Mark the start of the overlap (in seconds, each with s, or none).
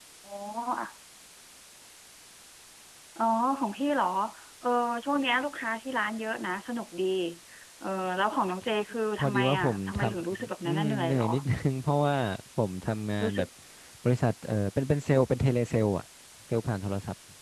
9.2 s